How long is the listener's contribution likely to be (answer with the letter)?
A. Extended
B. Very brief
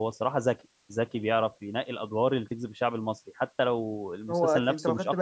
A